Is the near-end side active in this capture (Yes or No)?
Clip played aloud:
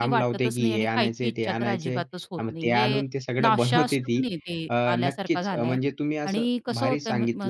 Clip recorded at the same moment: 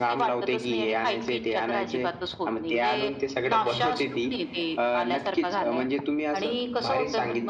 No